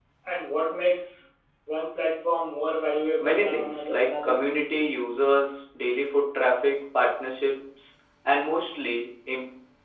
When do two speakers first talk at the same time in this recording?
3.2 s

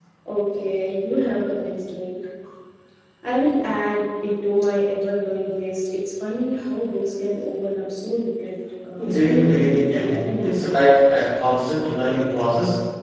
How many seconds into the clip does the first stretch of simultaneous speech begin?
9.0 s

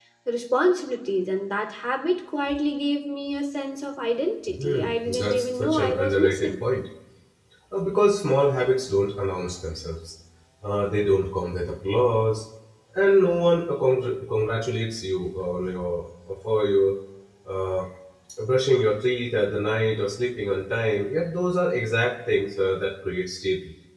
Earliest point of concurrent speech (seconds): 4.5 s

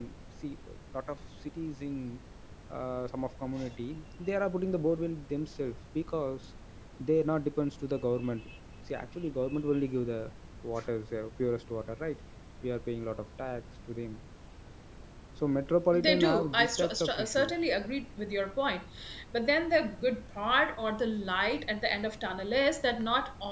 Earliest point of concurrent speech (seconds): 15.9 s

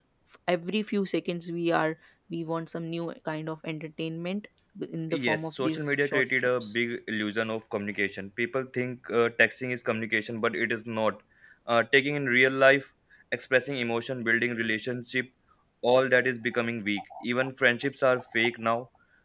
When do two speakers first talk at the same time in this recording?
5.1 s

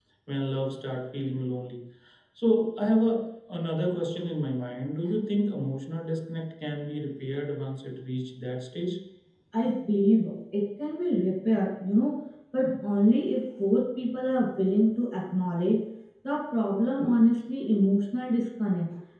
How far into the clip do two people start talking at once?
none

